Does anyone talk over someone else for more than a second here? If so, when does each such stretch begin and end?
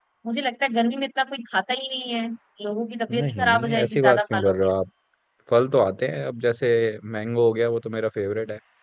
3.1-4.7

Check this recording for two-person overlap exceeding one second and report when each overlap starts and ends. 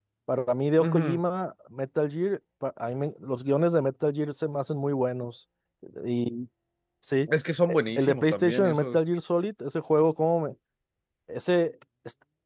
7.7-9.0

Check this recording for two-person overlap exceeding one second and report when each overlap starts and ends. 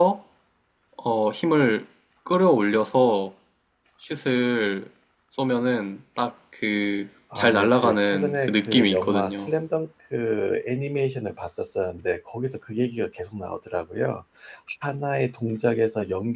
7.4-9.5

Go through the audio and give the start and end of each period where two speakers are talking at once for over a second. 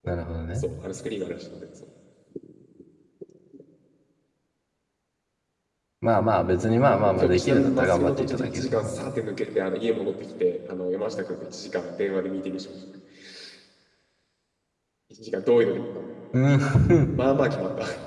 7.0-9.2

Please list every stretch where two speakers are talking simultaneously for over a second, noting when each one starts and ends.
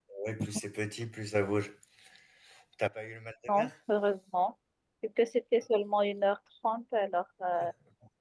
none

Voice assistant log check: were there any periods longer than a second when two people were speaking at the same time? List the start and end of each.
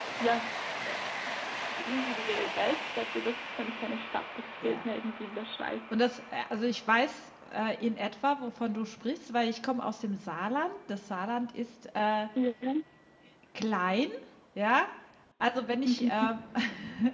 none

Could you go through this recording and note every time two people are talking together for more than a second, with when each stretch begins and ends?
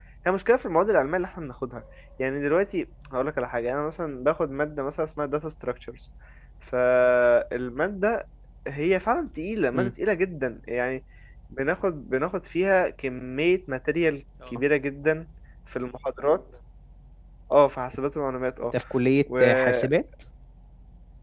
none

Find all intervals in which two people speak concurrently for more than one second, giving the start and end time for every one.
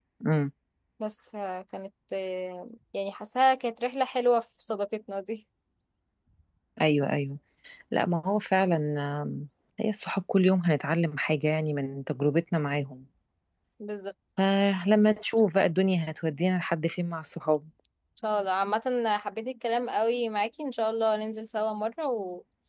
none

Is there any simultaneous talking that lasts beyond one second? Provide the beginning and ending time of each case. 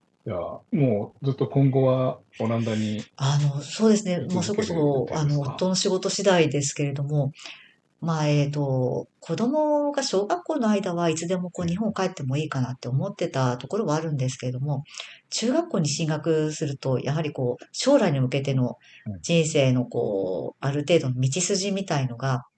4.3-5.6

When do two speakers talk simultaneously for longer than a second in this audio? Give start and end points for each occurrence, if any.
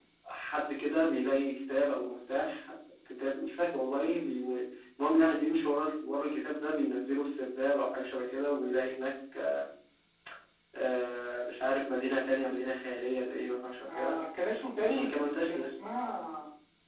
none

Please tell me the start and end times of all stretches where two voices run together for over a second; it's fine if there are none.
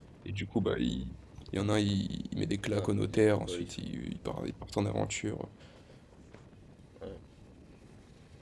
2.7-4.0

